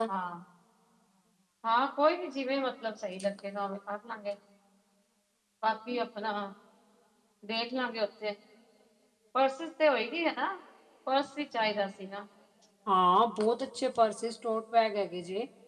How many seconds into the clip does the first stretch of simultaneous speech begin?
none

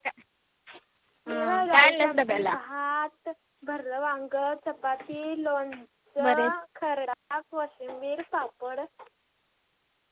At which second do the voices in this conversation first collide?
1 s

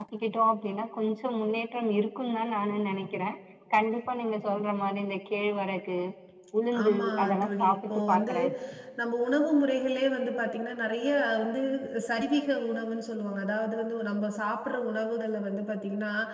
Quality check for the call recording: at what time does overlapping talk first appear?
7 s

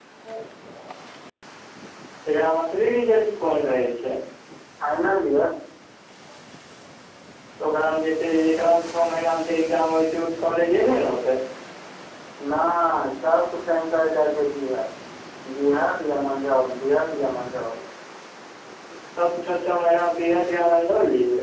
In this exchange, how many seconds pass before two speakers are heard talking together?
none

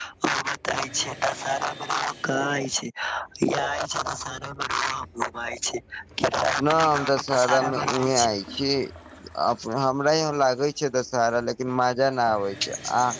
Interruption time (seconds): 7 s

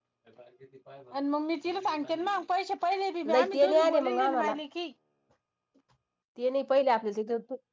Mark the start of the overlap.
3 s

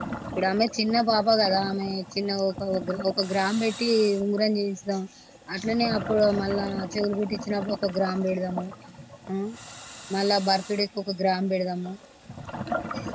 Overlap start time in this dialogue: none

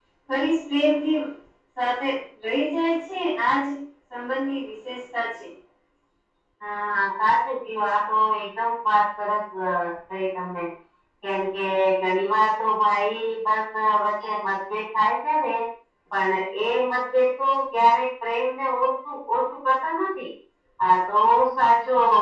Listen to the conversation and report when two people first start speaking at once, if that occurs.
none

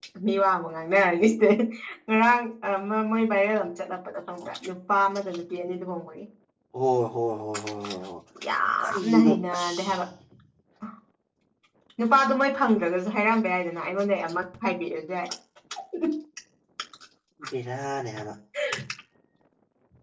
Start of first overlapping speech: 9 s

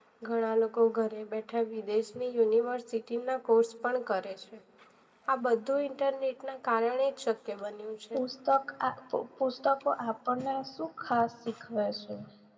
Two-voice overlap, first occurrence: none

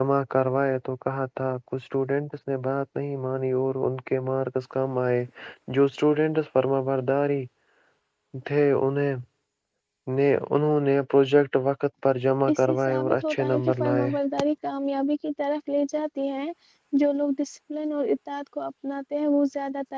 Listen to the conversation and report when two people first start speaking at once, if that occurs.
12 s

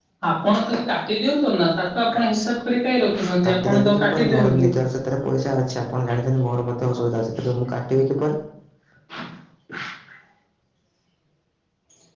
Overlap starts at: 3 s

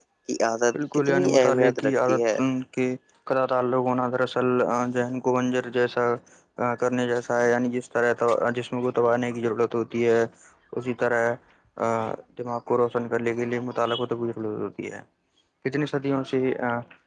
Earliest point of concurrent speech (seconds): 1 s

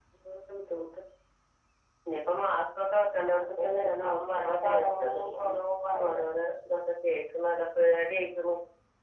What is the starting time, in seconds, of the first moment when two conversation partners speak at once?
3 s

